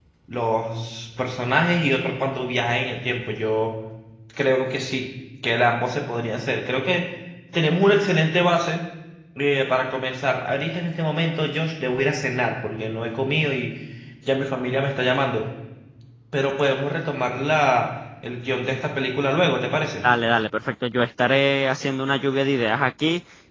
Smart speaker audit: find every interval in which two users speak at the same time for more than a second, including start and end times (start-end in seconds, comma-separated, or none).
none